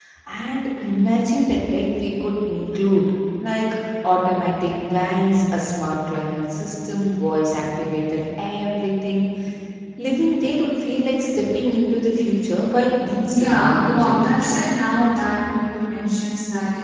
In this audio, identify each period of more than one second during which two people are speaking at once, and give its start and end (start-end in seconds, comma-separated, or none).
13.3-14.7